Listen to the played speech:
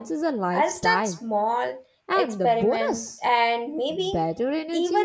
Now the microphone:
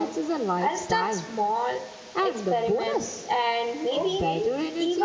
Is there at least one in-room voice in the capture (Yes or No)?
Yes